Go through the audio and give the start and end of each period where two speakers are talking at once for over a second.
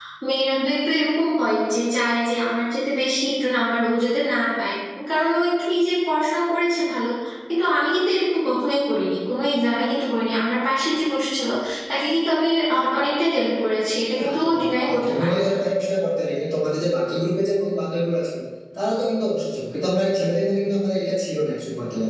14.1-15.5

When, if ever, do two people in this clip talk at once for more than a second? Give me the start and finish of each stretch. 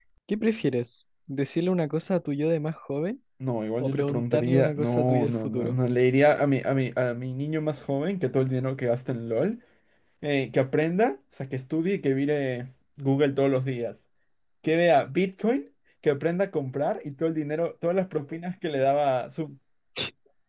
3.8-5.8

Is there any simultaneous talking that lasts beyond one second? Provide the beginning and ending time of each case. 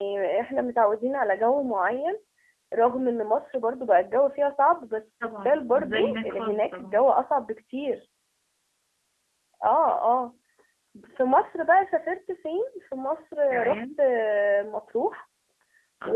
5.2-7.0

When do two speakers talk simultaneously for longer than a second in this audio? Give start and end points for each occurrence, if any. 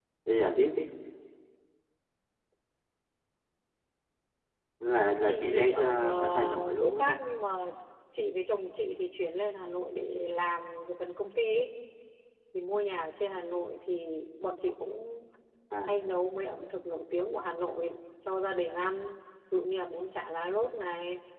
5.2-7.2

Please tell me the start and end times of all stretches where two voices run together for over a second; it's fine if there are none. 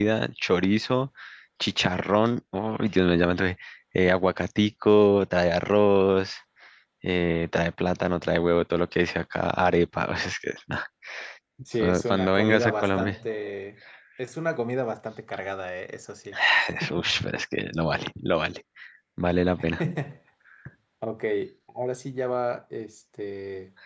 11.8-13.2

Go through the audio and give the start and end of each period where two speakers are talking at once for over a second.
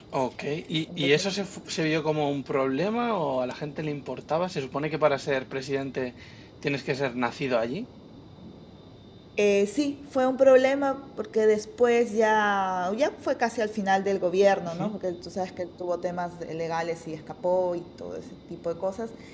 none

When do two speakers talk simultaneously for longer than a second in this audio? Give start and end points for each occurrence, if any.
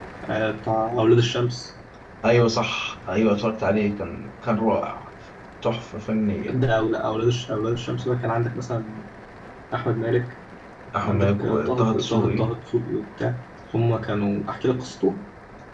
11.0-12.4

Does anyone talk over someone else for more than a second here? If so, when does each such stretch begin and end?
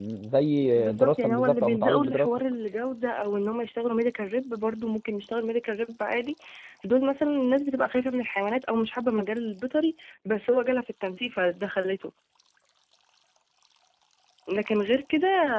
0.8-2.3

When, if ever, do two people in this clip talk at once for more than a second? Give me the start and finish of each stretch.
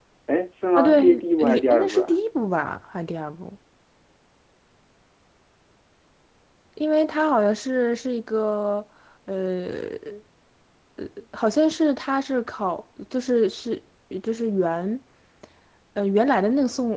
0.8-2.2

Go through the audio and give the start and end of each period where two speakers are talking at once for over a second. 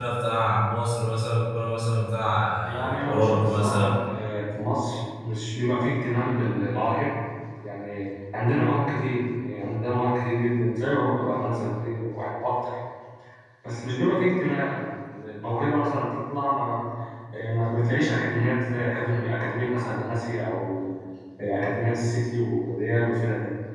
2.6-4.0

